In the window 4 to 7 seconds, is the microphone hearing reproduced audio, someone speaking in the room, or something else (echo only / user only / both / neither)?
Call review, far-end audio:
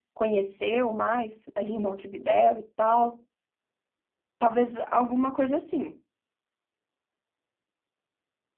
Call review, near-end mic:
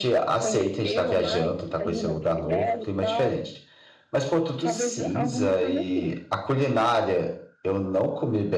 both